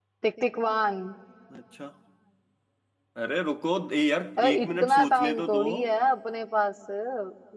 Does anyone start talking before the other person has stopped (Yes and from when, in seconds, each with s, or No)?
Yes, from 4.4 s